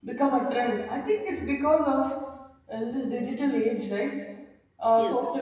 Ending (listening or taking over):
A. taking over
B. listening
B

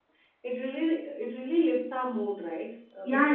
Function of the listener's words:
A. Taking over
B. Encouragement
A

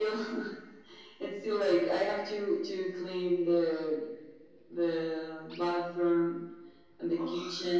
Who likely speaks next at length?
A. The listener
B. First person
B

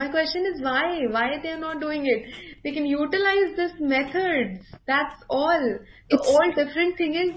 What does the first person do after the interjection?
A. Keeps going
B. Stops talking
A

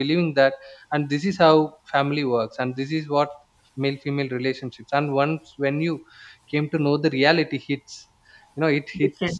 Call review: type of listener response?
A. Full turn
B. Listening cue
B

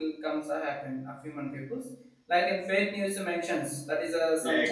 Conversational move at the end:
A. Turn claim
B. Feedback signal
B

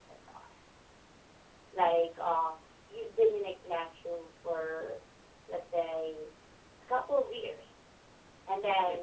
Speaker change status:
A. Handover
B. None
B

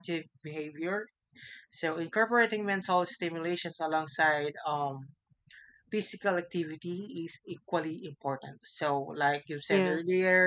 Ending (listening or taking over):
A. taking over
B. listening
B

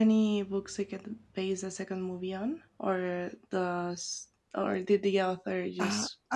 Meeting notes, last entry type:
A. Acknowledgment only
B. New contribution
B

